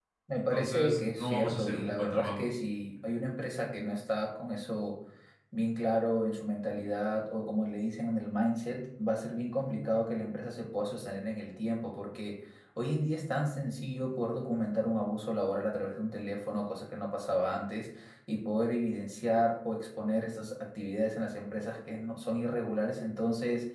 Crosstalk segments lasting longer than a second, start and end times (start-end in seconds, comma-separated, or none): 0.5-2.5